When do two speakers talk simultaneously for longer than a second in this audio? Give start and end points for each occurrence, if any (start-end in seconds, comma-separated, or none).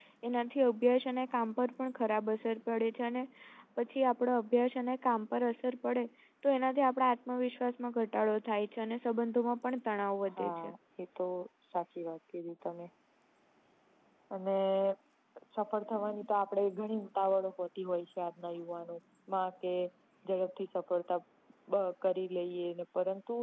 none